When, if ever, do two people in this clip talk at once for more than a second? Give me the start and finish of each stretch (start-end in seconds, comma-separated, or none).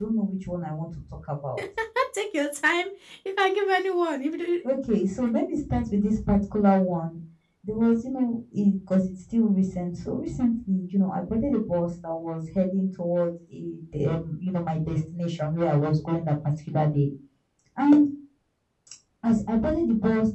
none